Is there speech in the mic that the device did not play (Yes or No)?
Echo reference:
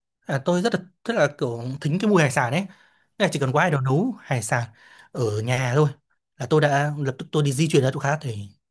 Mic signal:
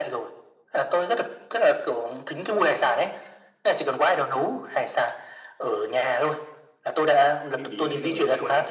Yes